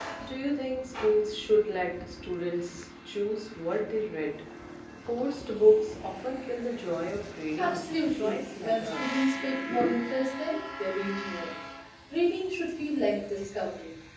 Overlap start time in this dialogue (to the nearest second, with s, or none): 8 s